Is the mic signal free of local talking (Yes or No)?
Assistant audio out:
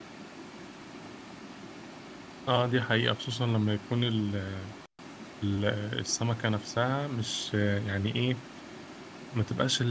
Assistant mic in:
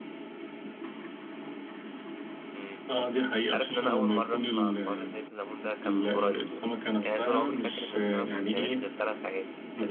No